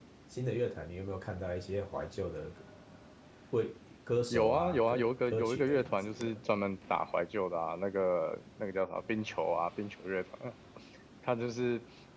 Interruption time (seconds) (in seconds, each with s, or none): 4.3 s